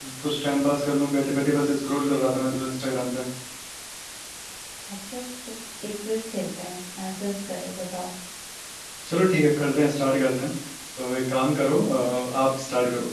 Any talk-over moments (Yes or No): No